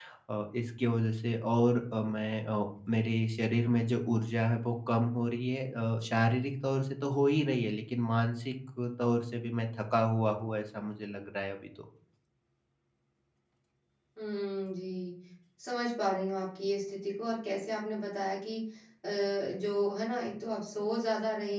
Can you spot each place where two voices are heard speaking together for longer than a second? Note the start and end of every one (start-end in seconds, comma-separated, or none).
none